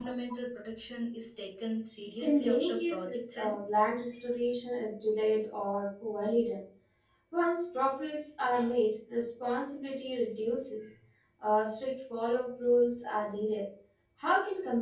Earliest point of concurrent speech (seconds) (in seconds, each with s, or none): 2.2 s